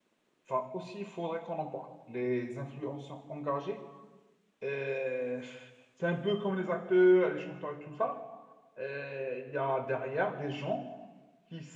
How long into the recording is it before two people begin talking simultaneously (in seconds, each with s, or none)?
none